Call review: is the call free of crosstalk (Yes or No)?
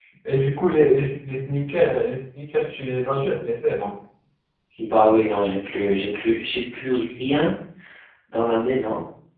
Yes